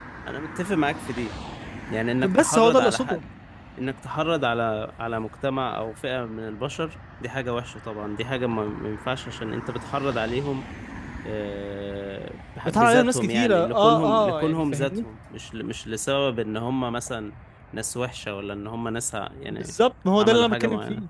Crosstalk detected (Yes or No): Yes